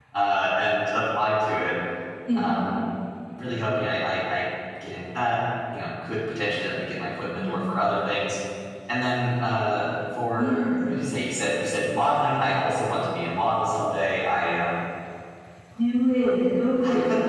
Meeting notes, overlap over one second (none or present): none